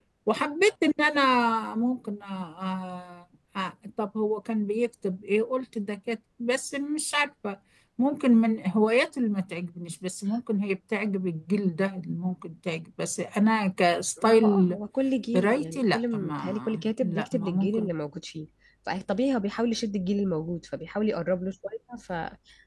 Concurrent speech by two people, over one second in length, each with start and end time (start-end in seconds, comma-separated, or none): 15.3-17.9